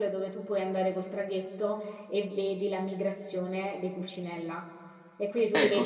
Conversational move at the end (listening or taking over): listening